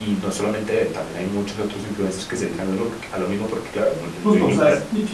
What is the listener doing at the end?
taking over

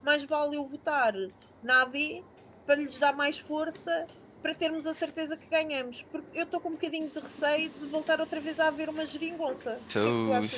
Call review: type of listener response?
taking over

